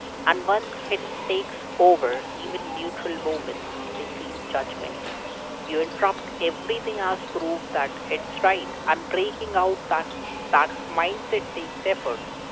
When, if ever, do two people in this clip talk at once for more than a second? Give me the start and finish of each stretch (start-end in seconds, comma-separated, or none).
none